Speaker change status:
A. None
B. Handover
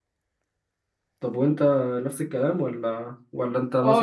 B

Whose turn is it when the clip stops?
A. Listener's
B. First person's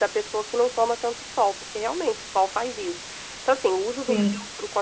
B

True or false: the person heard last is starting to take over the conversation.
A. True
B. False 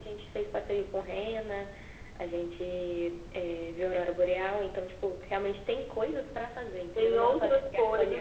A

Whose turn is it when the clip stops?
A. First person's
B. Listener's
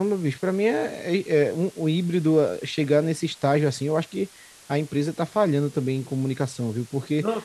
A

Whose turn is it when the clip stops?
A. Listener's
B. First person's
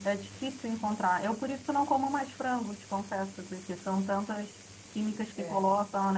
B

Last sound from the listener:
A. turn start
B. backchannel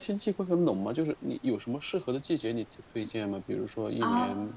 A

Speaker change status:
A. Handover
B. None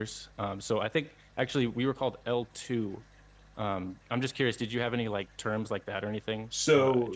A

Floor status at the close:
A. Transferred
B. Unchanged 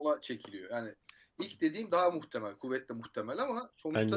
B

